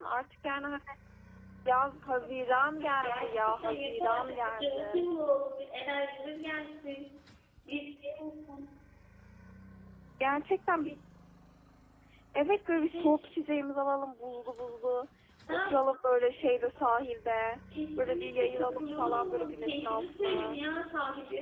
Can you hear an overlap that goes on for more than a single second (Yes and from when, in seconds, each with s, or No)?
Yes, from 3.0 s